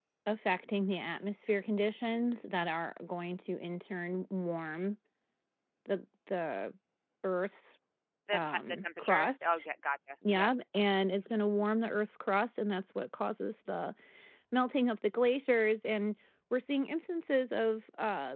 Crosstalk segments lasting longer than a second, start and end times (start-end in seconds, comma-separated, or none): 8.3-9.6